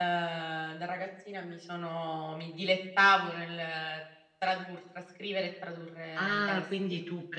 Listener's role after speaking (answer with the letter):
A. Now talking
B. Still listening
A